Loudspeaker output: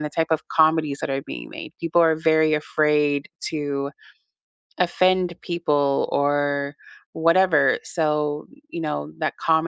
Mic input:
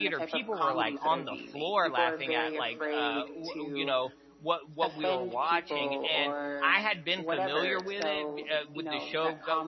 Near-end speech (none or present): present